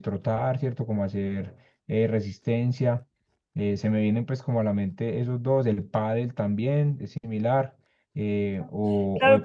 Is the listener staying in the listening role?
No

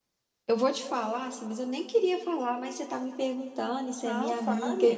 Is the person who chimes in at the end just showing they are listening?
Yes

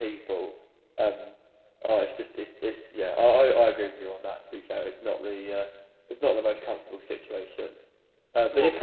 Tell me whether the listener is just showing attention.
Yes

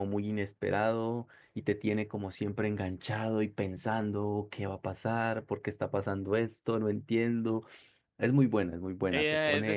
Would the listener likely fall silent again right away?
No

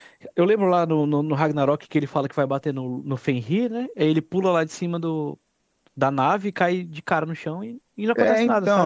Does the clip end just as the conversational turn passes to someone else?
Yes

